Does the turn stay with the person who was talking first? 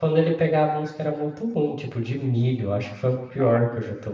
Yes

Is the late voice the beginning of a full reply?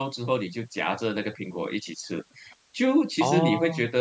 No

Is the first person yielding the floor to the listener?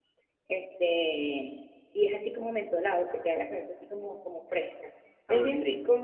No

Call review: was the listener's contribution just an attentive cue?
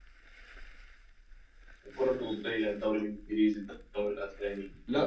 No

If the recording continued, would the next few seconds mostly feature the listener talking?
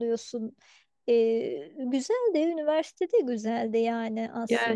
Yes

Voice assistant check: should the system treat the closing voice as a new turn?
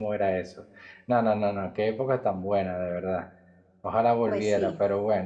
No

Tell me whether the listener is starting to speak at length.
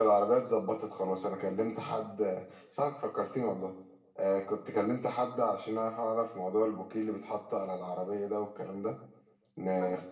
No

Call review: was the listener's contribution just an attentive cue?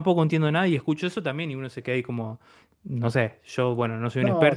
Yes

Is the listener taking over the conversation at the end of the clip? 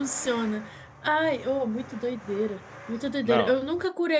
No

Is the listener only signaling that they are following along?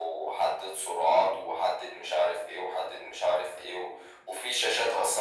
Yes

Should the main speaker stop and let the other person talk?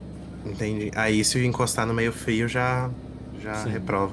Yes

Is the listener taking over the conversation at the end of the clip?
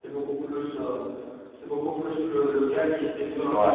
No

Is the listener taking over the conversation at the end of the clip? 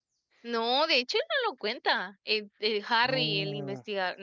No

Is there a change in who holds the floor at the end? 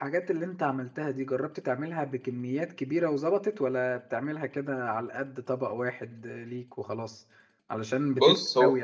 No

